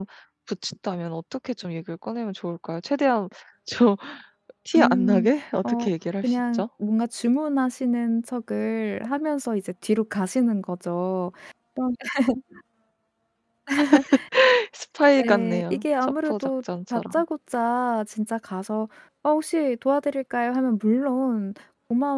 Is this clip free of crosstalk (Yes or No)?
No